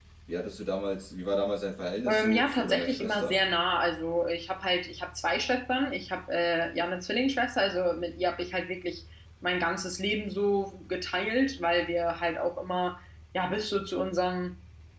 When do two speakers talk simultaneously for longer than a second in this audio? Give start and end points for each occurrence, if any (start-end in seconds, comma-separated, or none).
2.1-3.4